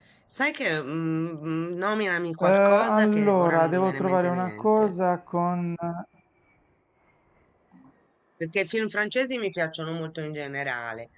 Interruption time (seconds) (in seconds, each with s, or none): 2.4 s